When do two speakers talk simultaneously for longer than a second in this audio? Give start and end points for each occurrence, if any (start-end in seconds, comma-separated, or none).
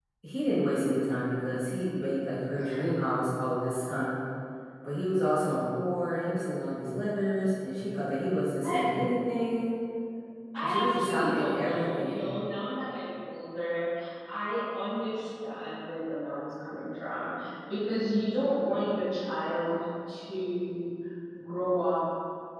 10.6-12.3